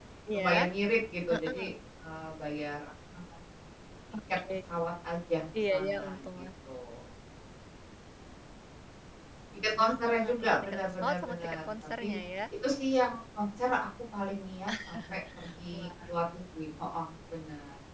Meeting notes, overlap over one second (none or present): present